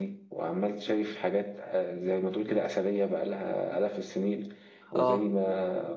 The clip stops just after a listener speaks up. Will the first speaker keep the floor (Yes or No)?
Yes